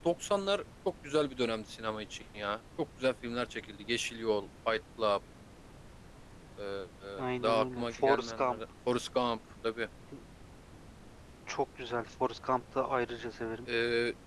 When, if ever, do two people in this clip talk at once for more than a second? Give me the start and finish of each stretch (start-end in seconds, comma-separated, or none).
7.2-8.6